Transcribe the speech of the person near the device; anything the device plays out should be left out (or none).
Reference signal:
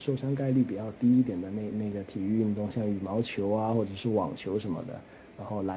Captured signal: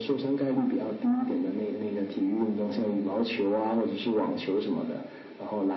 none